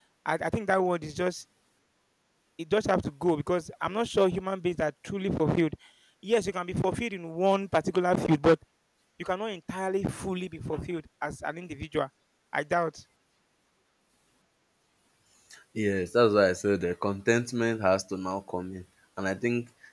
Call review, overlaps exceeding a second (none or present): none